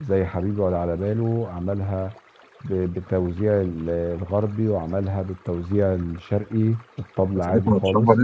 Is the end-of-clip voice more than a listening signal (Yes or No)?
Yes